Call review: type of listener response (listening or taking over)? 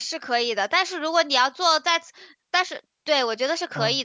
listening